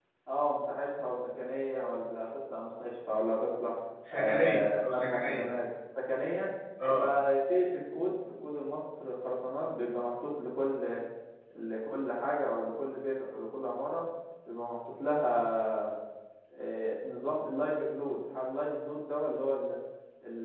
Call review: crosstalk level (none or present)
present